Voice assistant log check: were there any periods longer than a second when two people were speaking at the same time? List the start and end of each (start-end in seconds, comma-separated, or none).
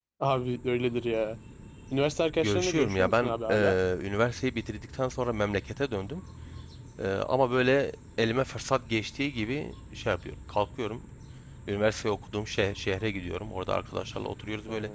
2.4-3.8